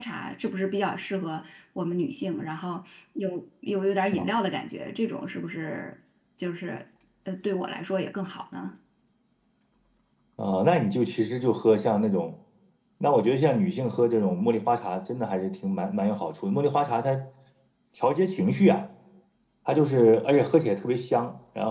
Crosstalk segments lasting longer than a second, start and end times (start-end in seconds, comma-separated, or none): none